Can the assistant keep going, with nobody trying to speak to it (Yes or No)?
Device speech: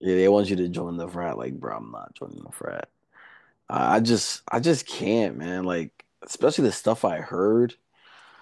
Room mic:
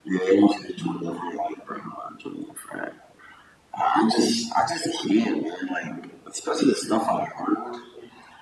Yes